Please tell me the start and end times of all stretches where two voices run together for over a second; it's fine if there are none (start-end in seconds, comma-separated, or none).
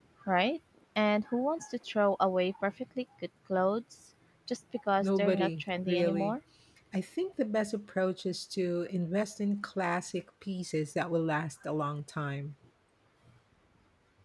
5.0-6.3